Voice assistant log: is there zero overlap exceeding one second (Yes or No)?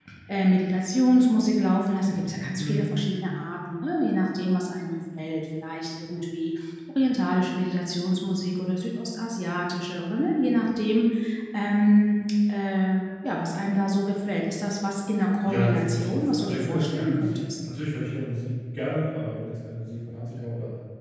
No